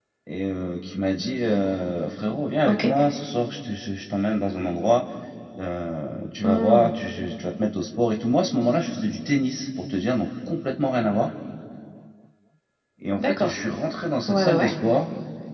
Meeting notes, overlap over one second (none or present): none